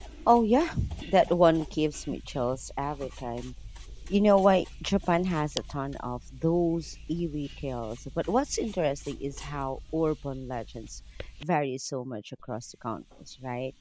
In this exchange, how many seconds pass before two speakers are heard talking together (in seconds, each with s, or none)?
none